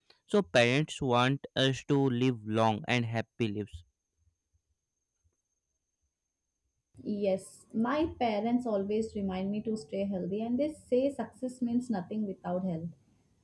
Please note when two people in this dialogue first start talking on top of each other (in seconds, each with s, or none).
none